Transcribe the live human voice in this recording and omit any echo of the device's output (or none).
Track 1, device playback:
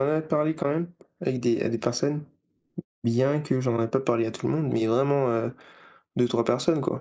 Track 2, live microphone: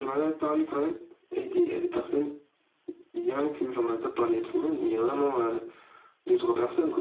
none